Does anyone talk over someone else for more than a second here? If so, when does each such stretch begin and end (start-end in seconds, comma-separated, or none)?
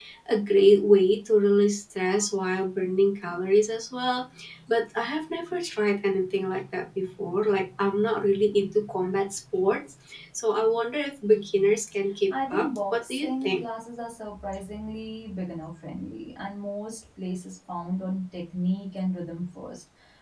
12.3-13.6